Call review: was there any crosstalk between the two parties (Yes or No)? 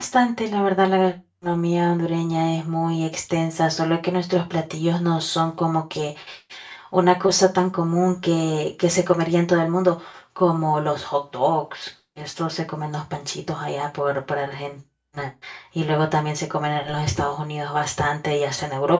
No